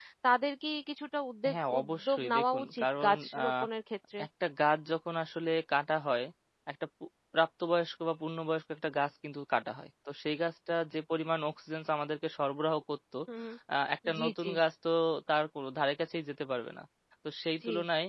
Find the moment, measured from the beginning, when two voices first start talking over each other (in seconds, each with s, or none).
1.5 s